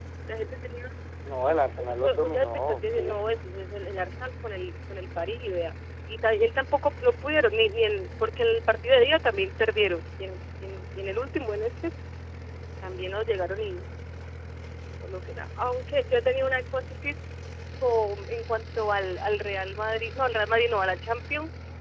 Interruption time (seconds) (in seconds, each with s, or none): 1.8 s